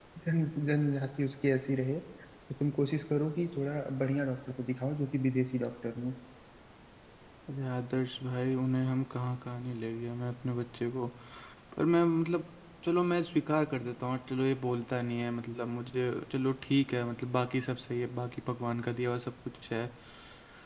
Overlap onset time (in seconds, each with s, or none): none